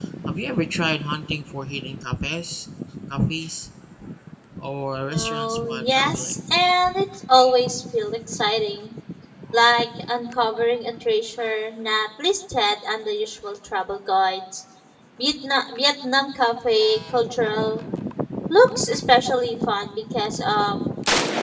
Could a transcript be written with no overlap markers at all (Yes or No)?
No